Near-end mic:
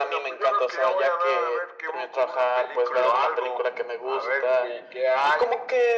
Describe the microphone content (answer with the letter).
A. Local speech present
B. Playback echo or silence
B